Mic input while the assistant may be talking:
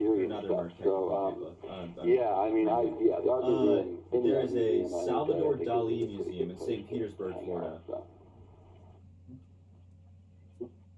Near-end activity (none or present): present